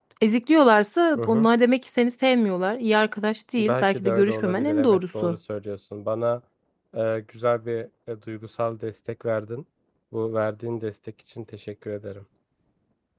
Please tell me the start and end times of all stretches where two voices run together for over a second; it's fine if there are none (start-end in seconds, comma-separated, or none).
3.6-5.4